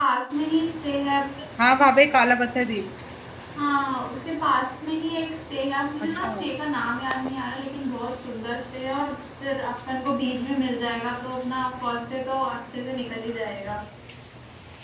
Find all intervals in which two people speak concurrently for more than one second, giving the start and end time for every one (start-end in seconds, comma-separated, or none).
none